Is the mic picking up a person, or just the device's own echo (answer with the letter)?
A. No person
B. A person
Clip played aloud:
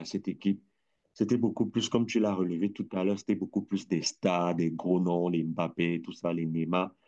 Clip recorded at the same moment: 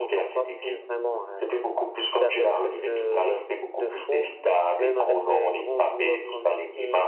B